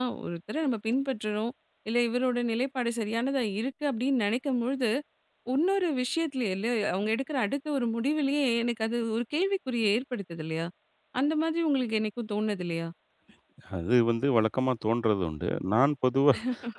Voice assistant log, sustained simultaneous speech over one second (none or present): none